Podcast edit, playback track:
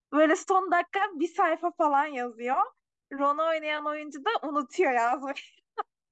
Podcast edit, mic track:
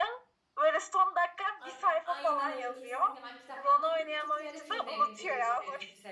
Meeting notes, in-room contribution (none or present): present